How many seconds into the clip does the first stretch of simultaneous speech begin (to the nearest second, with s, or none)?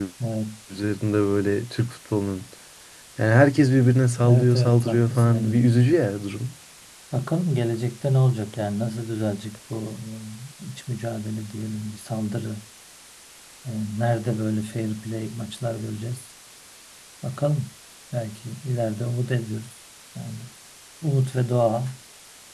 4 s